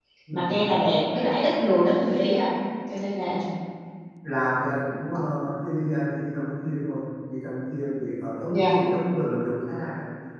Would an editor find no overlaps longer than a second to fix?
Yes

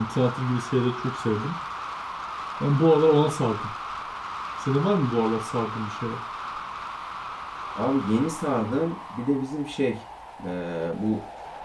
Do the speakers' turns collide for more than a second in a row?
No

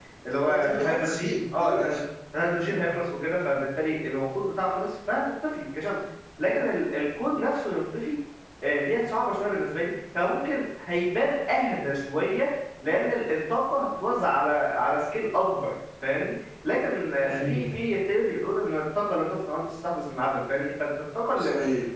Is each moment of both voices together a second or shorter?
No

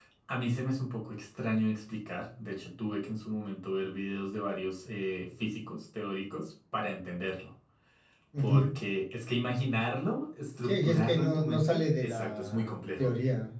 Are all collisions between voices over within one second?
No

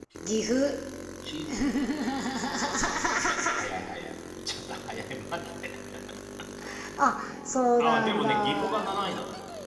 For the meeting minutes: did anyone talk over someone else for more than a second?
Yes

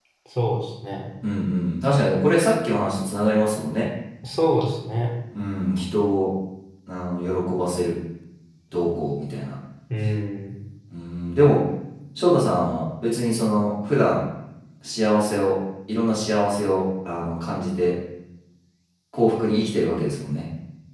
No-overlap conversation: Yes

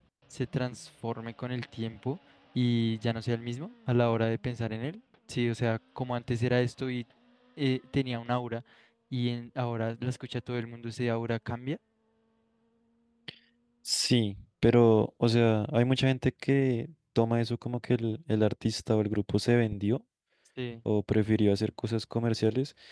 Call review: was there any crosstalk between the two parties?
No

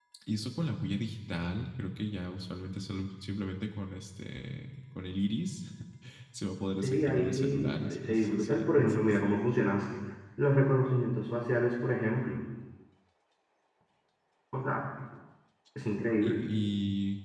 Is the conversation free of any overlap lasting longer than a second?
No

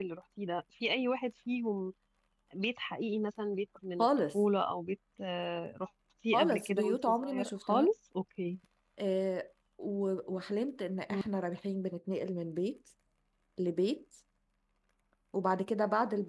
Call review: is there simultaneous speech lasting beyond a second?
Yes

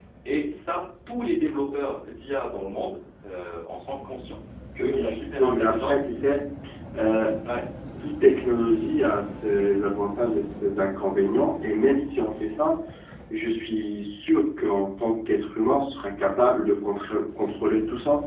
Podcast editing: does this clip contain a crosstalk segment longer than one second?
Yes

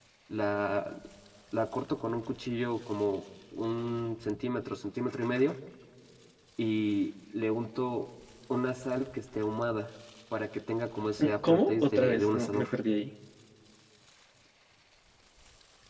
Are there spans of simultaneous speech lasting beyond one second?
Yes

